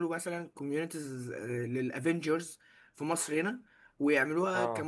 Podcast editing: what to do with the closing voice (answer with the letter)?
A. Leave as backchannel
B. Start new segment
A